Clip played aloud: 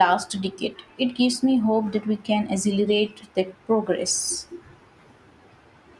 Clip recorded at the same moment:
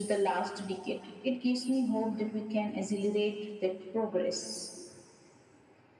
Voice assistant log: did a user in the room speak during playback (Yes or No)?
No